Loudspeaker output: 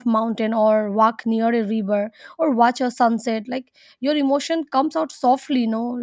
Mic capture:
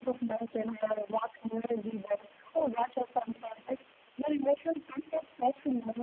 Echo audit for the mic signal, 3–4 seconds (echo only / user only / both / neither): echo only